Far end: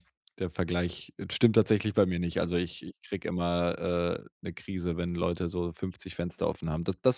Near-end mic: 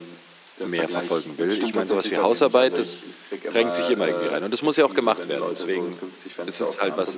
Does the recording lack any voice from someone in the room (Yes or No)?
No